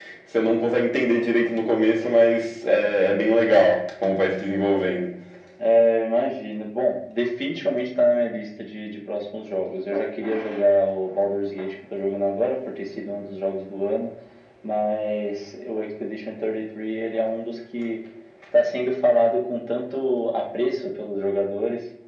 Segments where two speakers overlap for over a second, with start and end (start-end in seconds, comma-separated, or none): none